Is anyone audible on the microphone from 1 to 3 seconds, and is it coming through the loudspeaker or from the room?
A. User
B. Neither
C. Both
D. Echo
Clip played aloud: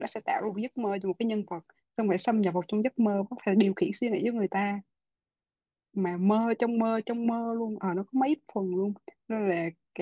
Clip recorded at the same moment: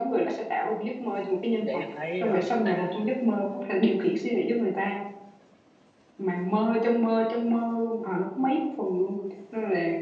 C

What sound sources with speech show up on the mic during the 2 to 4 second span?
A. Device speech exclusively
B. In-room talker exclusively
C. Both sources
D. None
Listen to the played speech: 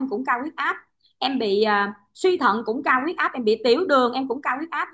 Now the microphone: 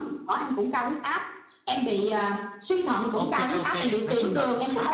C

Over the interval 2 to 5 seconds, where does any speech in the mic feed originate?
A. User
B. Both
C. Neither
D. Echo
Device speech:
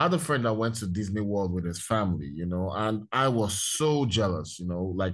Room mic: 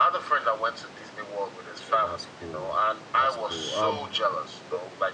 B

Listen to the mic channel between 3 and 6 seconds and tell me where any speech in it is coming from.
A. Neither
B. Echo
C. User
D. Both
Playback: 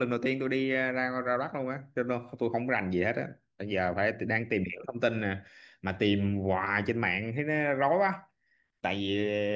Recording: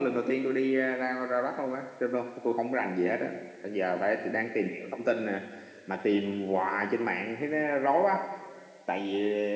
B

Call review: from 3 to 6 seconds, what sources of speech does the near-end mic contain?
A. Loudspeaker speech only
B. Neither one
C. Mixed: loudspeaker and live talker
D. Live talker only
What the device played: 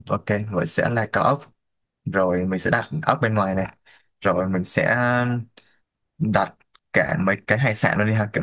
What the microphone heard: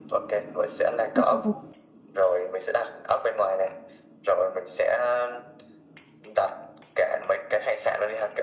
A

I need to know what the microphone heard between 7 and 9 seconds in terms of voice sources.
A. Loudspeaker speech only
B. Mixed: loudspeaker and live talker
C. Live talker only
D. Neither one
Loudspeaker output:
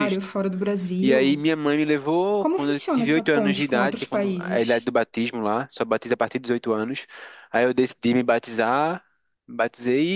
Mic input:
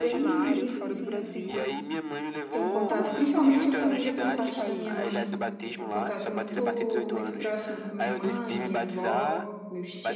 B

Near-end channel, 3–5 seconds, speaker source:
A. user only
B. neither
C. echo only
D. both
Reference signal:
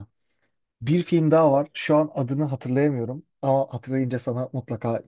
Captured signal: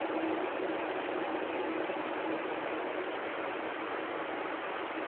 B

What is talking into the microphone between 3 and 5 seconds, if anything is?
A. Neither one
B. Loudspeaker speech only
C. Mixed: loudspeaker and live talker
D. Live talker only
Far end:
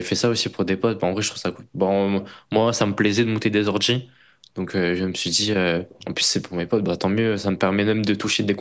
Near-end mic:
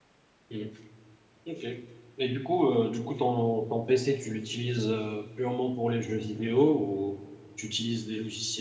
D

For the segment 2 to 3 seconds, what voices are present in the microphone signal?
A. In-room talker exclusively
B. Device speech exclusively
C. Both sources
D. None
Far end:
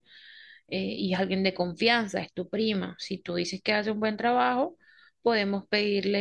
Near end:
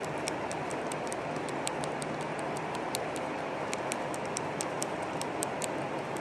D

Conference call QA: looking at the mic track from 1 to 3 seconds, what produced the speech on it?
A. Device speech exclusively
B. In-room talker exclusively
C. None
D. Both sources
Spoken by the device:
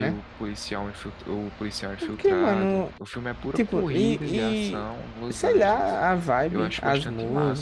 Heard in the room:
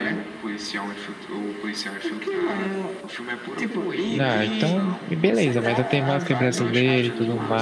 A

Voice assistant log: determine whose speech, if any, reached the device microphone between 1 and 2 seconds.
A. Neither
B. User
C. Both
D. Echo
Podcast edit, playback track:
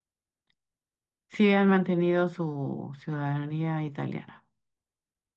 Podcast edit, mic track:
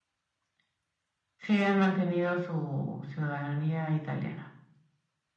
D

